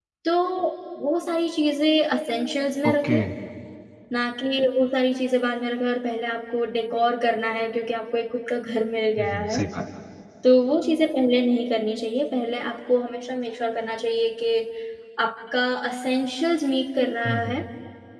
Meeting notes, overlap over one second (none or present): none